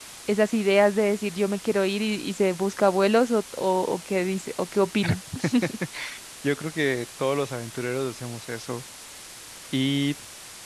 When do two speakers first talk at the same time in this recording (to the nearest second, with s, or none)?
none